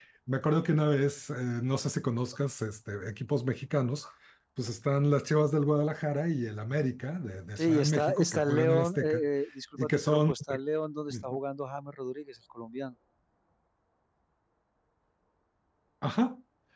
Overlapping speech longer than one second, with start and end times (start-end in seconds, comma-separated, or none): 7.6-9.2